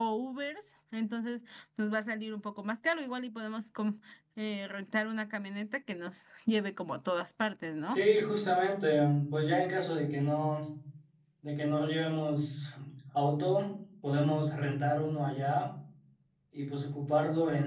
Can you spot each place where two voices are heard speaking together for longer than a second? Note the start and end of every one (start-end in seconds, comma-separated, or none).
none